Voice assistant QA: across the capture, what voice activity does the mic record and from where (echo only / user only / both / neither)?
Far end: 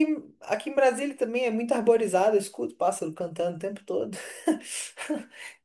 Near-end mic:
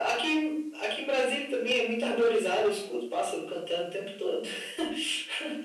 echo only